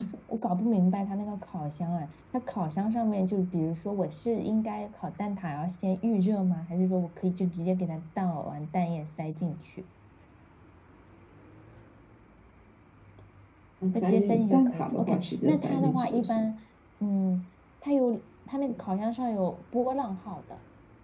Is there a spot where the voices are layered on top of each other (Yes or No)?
Yes